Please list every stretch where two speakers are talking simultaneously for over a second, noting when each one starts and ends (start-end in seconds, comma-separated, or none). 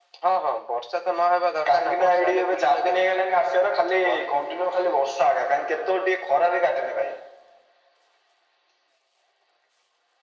1.7-3.1